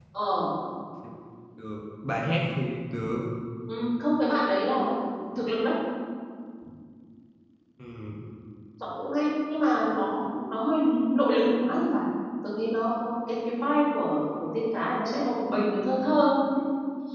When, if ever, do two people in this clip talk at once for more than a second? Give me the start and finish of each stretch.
none

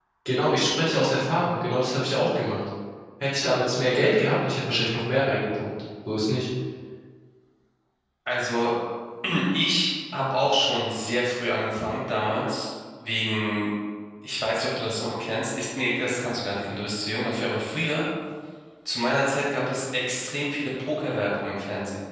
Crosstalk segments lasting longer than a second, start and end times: none

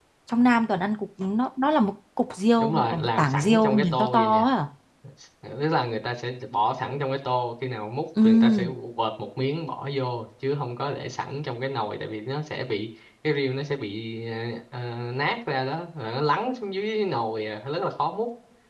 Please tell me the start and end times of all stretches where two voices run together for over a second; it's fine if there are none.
2.6-4.5

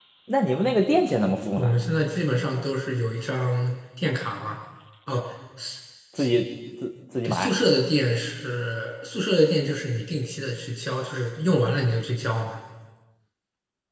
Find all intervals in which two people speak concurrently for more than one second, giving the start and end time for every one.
none

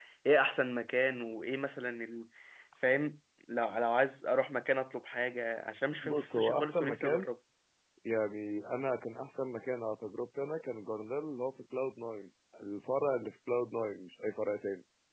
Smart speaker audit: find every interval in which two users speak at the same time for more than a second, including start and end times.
6.0-7.3

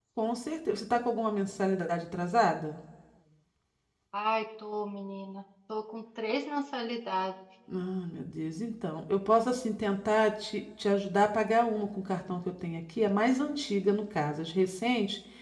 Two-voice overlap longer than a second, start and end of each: none

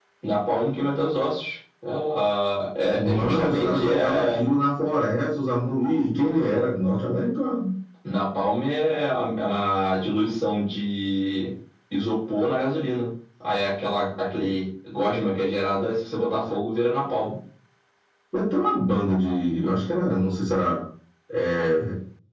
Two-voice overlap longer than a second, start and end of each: 2.9-4.4

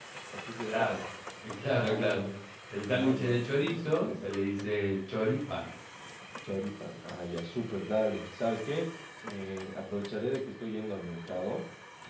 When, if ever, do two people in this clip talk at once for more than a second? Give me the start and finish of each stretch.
2.9-4.3

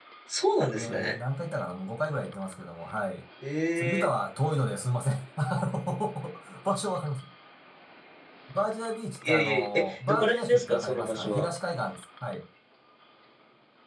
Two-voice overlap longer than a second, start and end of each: 9.2-11.5

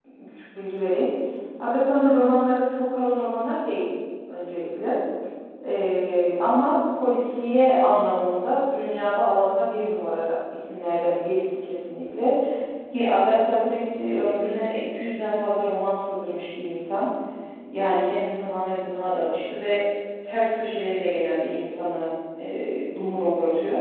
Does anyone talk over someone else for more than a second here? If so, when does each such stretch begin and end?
none

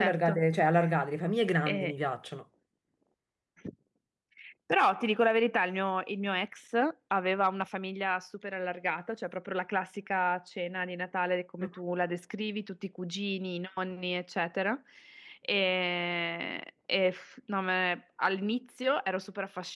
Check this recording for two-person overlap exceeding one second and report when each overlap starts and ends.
none

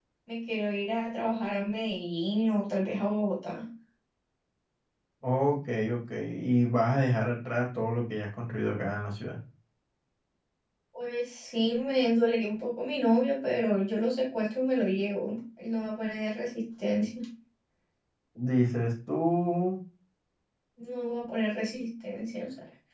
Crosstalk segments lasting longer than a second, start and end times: none

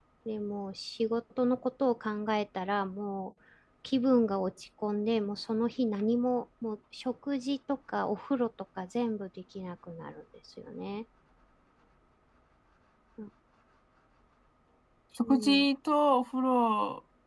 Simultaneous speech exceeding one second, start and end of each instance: none

